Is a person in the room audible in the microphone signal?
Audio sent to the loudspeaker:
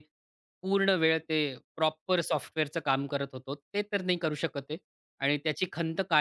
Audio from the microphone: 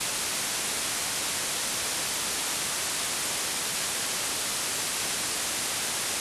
No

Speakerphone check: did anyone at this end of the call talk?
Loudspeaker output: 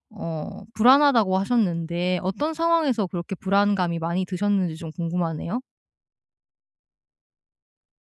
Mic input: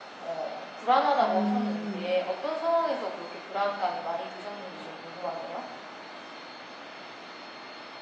Yes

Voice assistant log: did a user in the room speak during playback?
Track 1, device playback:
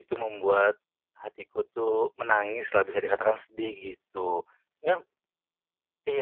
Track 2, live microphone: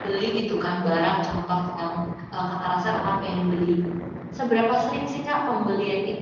Yes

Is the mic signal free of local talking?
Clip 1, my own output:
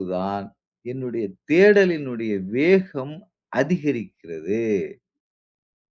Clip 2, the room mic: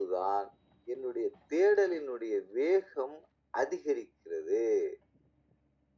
Yes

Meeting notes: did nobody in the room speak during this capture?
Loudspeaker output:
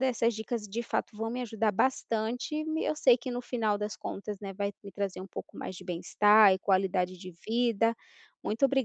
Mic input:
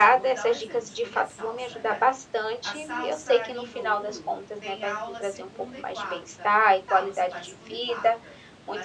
No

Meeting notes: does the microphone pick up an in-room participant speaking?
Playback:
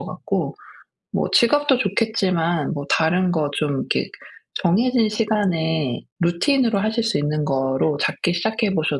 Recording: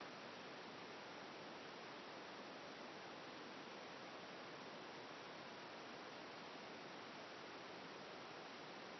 No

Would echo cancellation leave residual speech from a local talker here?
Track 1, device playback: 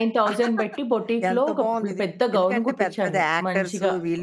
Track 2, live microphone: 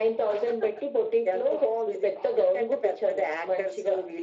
No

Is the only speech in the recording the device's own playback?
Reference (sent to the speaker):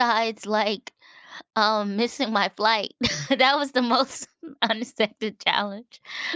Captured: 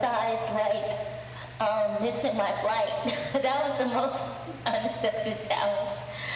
Yes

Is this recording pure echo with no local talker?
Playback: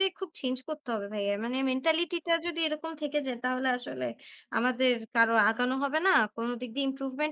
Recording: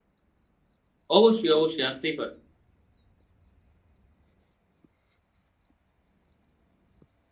No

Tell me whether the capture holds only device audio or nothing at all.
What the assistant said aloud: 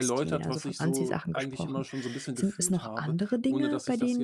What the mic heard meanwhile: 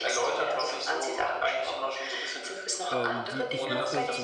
No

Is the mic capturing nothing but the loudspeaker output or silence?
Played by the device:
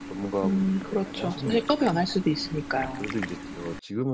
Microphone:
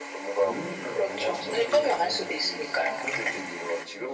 No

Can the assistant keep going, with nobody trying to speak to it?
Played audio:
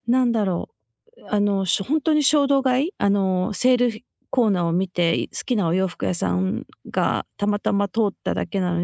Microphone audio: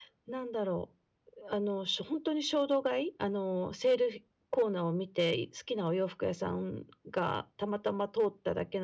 Yes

